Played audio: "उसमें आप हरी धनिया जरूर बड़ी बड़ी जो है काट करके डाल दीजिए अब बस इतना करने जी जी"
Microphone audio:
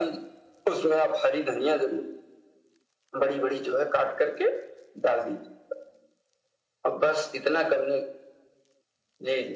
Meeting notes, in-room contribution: none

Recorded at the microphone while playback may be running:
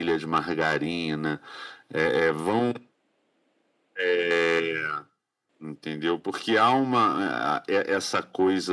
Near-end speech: none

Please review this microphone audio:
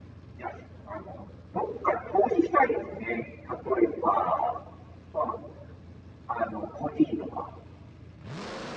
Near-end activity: none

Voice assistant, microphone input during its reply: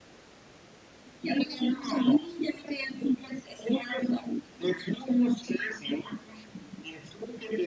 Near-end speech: none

